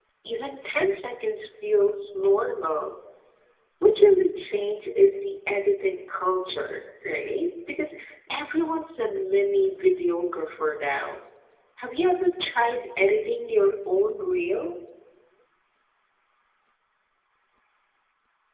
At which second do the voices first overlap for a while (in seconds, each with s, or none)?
none